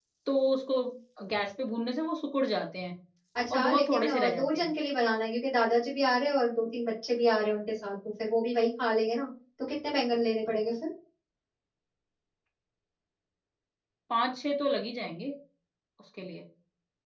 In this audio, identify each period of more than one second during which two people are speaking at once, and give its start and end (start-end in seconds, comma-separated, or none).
3.5-4.7